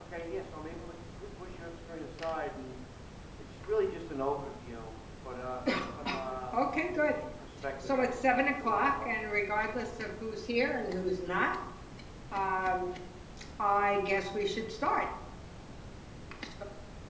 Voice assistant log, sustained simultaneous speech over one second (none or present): present